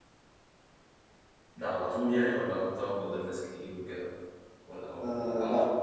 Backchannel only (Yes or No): No